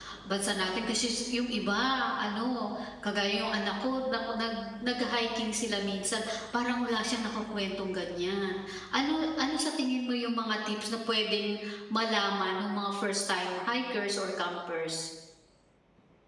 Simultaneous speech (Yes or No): No